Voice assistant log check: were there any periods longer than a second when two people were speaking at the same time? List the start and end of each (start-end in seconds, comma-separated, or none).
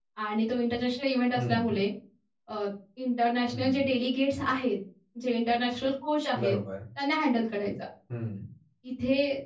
none